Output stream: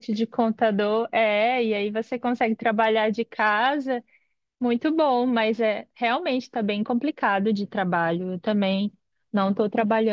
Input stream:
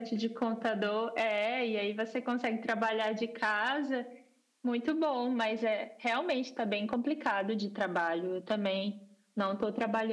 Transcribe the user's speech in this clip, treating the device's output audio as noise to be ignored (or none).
none